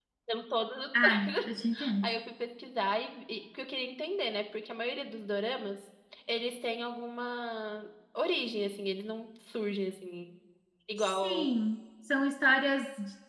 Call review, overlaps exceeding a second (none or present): none